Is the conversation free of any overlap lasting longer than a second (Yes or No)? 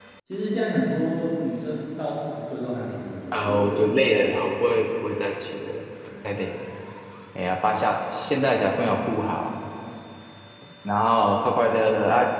No